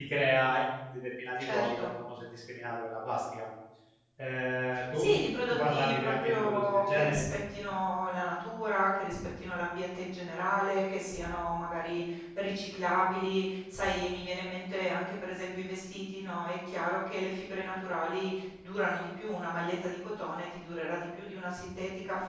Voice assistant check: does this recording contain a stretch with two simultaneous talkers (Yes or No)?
Yes